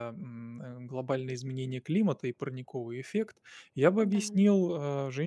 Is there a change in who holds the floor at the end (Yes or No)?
No